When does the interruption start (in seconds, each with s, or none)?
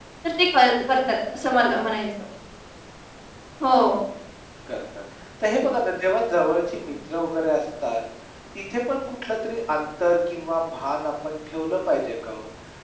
none